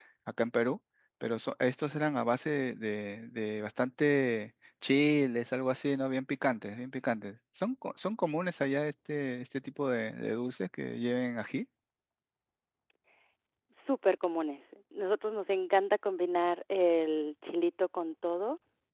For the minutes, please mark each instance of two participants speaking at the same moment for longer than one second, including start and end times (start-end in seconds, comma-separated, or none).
none